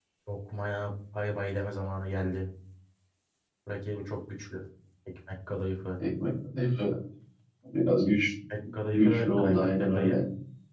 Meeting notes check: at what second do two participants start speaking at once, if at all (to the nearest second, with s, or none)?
9 s